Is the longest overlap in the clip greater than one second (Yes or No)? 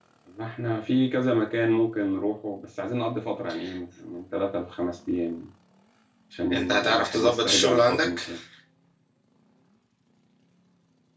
Yes